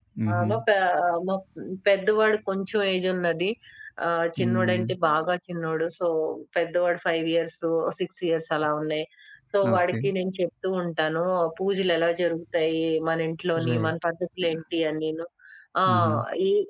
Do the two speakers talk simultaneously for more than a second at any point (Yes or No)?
No